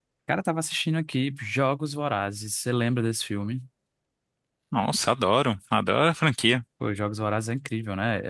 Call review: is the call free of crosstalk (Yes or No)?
Yes